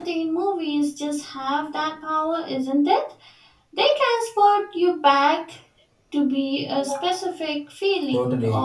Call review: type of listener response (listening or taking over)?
taking over